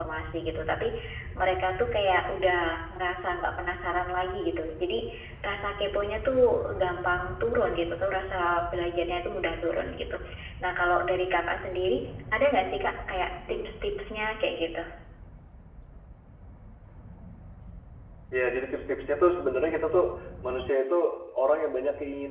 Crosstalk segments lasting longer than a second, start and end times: none

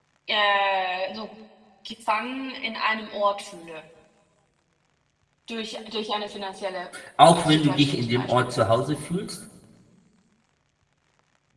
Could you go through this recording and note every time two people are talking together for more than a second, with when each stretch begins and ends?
7.3-8.5

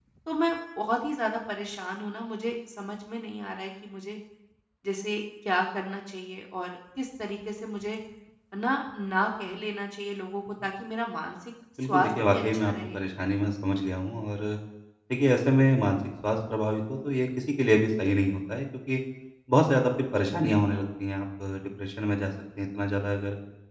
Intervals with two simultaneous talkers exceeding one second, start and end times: 11.8-13.0

